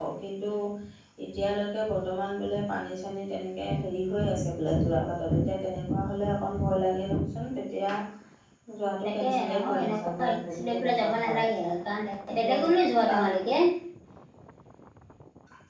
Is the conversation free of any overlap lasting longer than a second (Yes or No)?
No